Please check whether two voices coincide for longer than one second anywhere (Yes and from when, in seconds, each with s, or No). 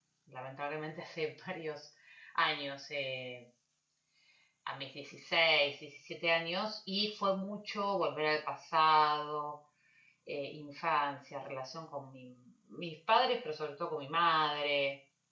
No